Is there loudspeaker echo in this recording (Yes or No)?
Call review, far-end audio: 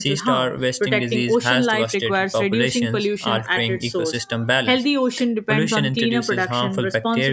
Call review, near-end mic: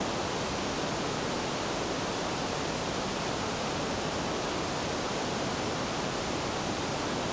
No